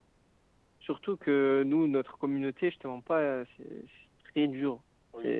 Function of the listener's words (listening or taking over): taking over